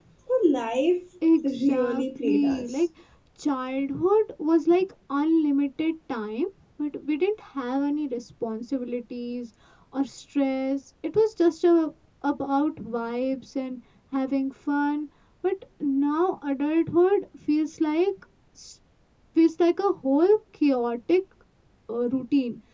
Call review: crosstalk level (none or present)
present